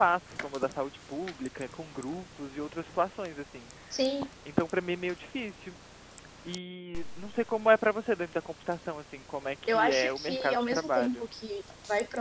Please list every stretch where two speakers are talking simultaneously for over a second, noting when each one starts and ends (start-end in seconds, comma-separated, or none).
9.7-11.2